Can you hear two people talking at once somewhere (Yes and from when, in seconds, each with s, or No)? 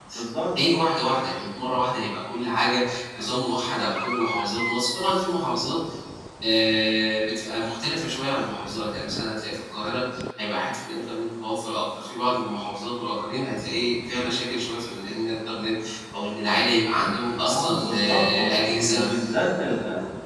Yes, from 17.4 s